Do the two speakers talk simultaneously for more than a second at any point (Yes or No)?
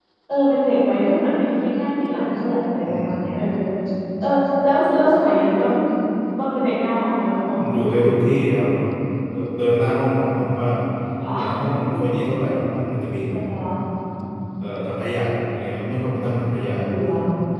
No